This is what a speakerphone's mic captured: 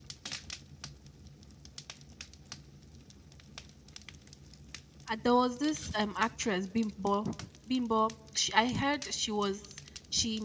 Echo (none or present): none